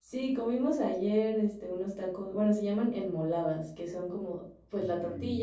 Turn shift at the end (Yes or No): No